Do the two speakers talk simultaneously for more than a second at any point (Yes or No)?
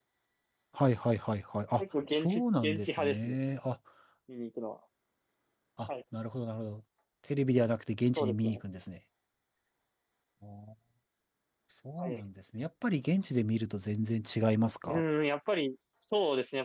Yes